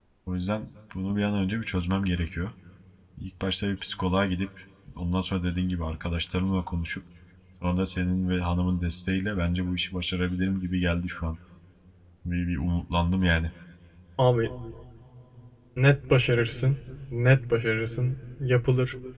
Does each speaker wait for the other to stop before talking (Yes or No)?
Yes